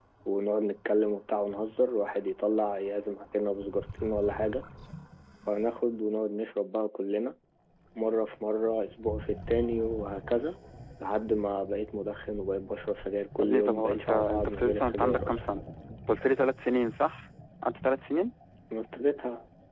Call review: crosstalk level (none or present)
present